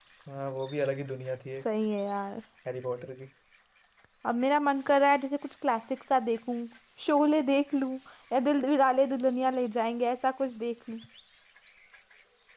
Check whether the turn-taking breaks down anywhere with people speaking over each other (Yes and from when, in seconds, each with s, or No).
No